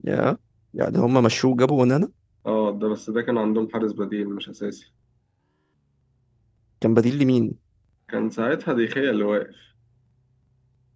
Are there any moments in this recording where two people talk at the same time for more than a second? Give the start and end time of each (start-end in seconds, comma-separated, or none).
none